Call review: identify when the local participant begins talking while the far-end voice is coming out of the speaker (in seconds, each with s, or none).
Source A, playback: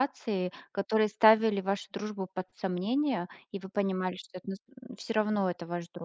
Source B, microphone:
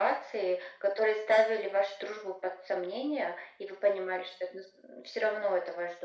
none